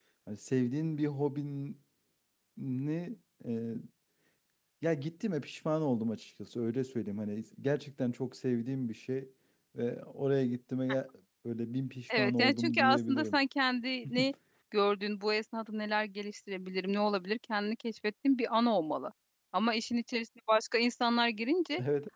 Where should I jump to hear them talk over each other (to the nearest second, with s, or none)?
12 s